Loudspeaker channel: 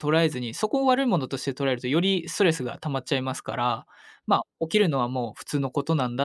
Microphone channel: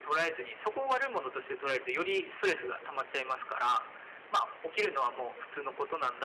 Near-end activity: none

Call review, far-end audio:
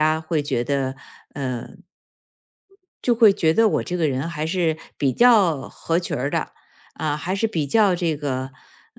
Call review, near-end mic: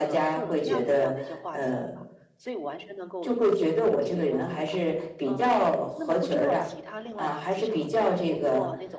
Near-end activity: present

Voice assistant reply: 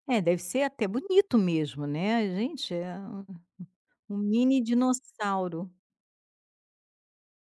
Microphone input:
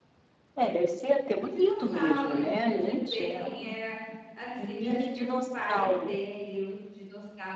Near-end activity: present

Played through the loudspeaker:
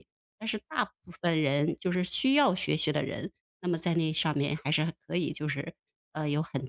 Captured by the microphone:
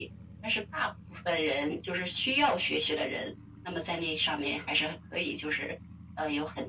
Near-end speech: none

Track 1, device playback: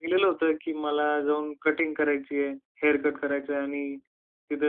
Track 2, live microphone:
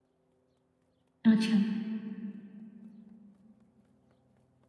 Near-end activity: present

